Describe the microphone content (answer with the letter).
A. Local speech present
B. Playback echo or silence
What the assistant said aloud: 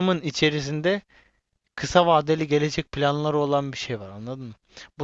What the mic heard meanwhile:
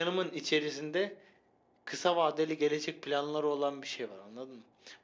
B